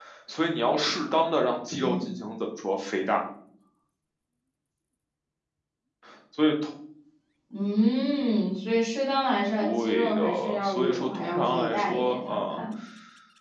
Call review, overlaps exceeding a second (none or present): present